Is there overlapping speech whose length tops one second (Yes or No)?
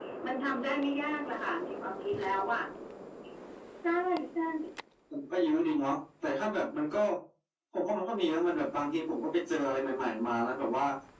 No